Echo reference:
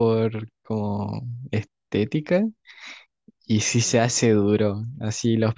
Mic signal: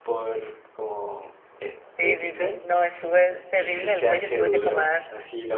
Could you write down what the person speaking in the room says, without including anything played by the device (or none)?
Sí, sí, sí. No, estuve terrible del cuello, tuve que tomar